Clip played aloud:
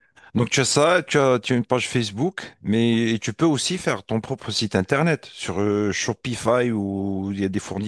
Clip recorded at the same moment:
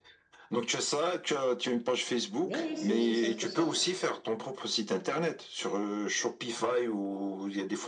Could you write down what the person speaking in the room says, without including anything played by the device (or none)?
Non, ouais, c'est aussi simple que ça.